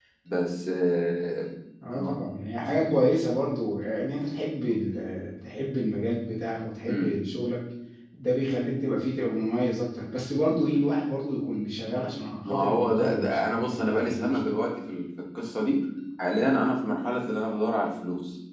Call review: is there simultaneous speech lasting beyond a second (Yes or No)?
Yes